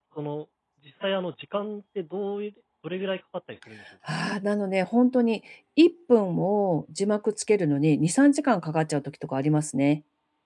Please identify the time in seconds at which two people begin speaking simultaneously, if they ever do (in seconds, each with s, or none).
none